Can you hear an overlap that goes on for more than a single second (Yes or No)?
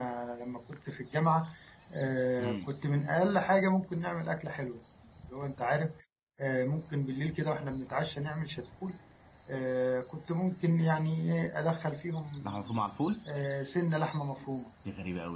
No